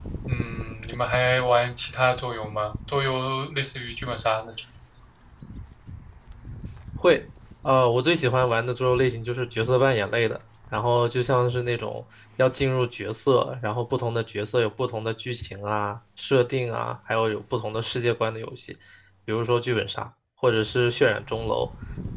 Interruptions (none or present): none